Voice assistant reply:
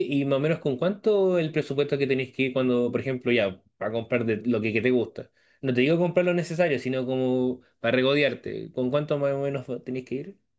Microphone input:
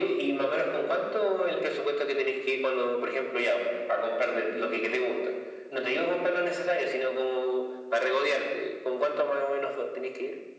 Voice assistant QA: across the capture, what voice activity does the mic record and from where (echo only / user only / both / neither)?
echo only